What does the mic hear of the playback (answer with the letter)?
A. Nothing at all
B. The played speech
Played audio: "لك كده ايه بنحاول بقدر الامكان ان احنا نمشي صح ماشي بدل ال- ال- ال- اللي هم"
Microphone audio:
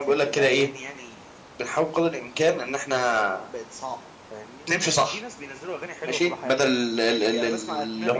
B